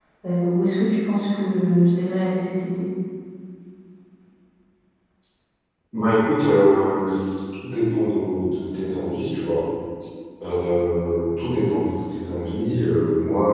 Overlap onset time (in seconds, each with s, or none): none